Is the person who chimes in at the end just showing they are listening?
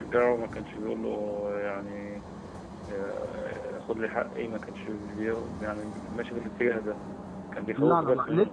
No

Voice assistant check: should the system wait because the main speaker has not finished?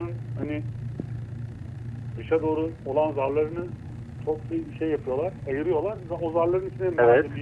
Yes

